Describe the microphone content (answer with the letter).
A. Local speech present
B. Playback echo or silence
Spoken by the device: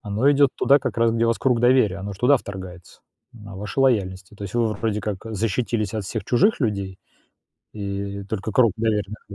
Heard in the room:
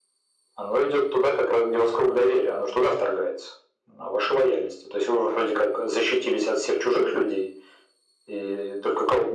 B